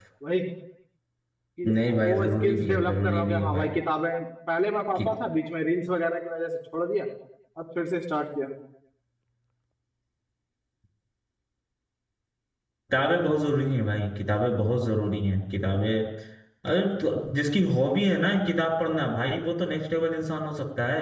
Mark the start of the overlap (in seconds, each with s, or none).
1.7 s